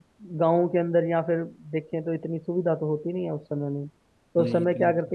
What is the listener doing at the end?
listening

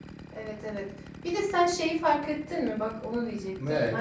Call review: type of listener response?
listening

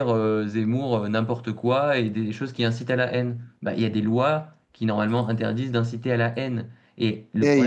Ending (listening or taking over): taking over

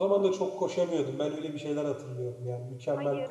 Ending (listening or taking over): taking over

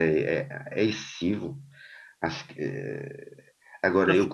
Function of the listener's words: taking over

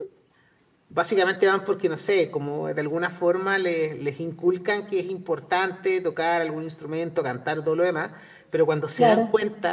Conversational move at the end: listening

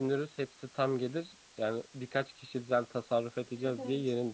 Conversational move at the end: listening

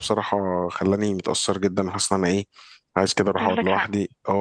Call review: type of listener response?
listening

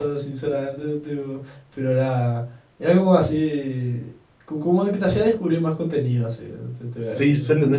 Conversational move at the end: taking over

